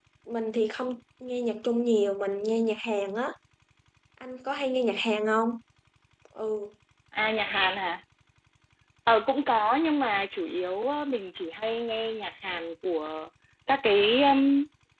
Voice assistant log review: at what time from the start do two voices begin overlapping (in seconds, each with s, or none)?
none